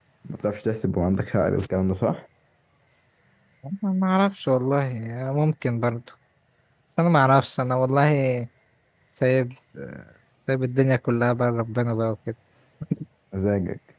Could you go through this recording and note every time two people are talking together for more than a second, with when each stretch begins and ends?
none

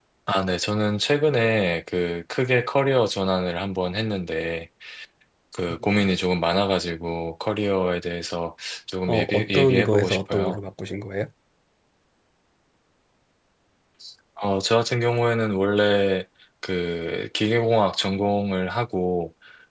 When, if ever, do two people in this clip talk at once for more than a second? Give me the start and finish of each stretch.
9.1-10.6

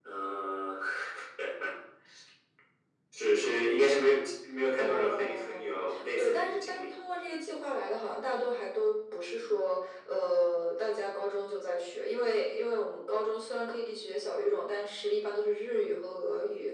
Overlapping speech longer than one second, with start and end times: 4.8-6.9

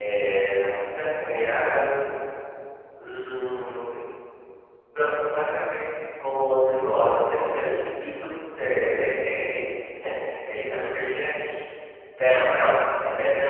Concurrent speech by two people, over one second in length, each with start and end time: none

